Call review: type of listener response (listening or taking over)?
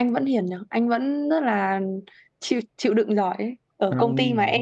listening